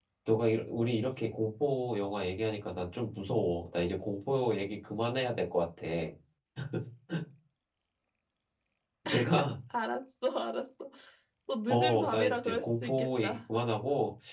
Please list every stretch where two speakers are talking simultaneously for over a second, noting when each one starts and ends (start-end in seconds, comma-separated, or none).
11.7-13.4